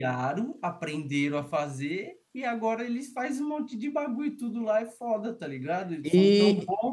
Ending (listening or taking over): listening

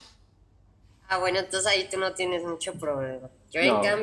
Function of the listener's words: listening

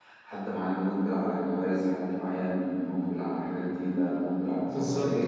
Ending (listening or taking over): listening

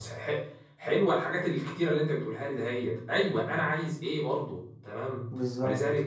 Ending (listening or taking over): listening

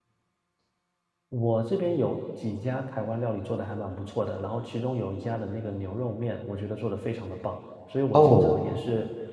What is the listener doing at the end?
listening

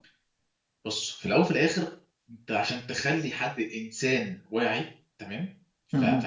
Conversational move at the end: listening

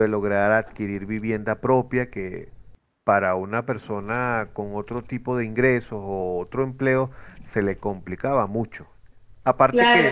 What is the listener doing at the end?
taking over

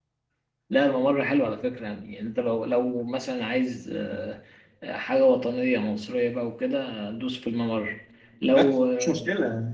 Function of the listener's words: taking over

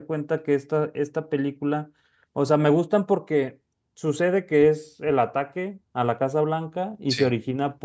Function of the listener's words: listening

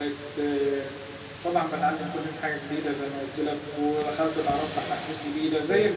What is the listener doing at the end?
listening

